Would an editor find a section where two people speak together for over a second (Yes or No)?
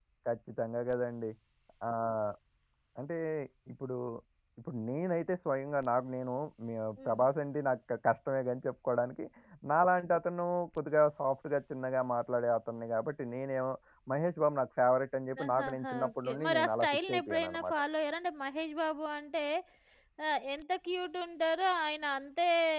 Yes